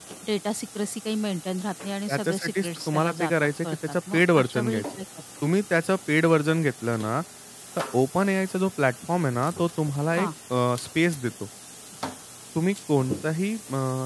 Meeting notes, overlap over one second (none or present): present